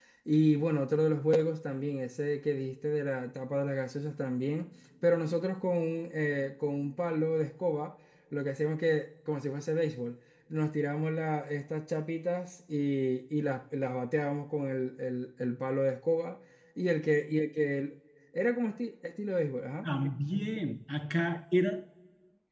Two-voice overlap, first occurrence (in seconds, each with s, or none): none